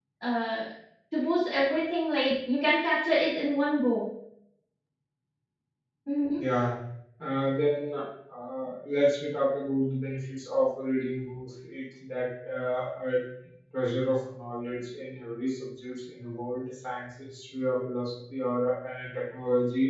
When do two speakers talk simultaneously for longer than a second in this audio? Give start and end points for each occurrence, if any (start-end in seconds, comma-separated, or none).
none